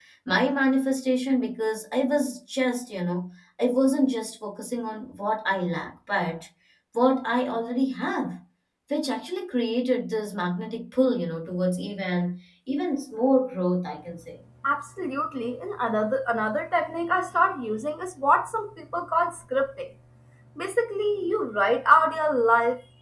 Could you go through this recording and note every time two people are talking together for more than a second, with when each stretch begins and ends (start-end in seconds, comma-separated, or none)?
none